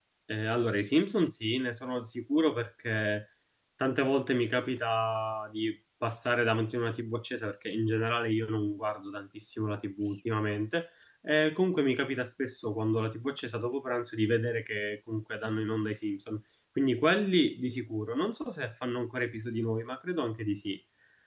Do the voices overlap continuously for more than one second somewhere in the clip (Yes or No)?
No